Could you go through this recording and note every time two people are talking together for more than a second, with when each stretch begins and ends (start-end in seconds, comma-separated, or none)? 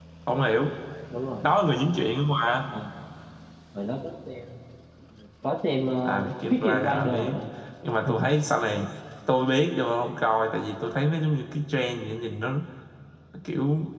6.0-7.4